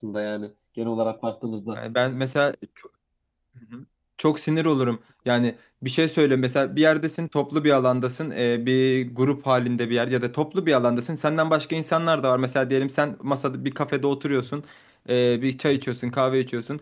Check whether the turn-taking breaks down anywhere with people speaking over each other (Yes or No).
No